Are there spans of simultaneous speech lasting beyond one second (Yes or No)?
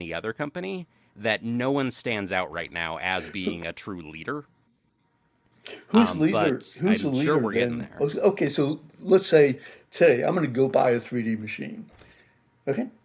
Yes